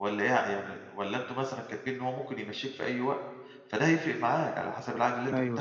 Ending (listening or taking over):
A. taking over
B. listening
A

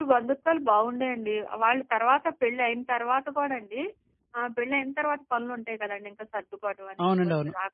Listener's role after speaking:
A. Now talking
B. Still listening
B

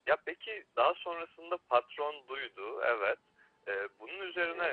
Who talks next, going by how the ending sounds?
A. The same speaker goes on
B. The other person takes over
A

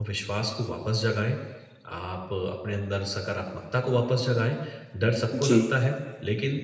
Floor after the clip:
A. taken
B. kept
B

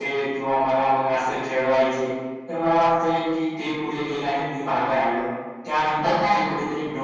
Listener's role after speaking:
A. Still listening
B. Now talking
A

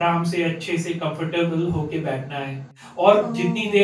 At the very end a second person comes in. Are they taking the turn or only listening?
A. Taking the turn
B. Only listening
A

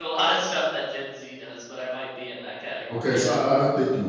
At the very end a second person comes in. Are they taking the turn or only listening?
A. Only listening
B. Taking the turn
B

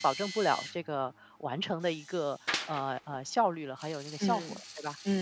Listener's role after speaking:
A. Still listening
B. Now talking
B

